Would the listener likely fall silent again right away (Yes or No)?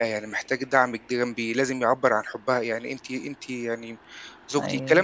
Yes